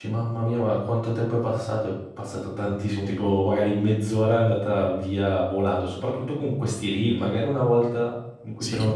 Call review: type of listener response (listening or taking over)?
listening